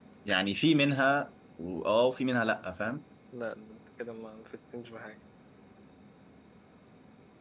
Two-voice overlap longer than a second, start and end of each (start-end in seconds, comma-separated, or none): none